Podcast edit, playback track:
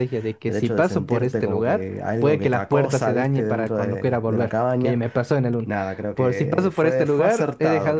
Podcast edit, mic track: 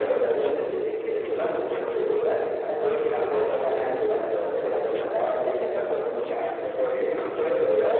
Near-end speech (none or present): none